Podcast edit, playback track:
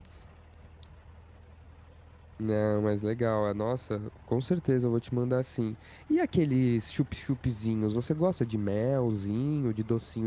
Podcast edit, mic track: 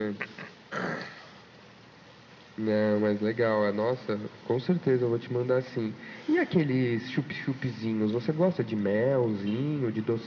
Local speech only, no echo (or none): none